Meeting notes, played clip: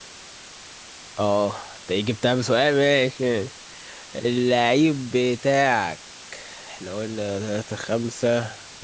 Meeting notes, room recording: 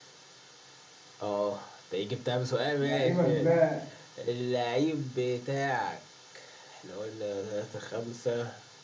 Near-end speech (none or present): present